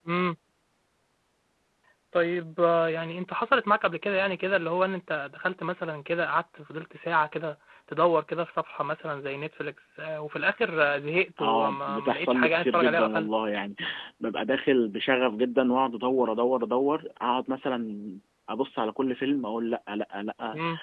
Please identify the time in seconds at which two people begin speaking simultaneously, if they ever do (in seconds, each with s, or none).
11.4 s